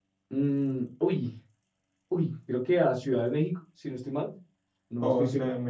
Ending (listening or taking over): taking over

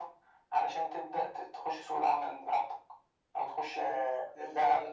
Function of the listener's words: taking over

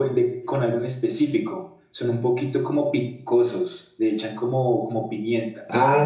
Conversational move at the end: taking over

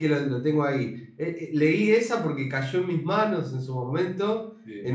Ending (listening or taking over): listening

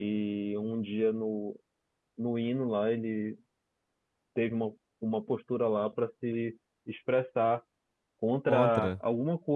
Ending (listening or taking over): listening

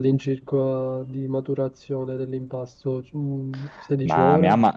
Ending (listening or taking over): taking over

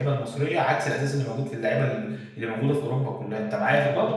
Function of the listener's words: taking over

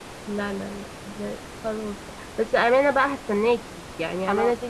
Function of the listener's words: listening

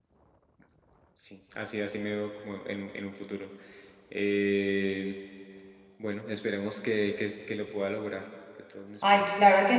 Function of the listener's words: taking over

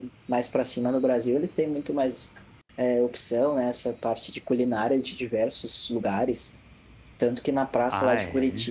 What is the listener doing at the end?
listening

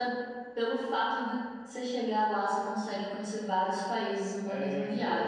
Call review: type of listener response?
taking over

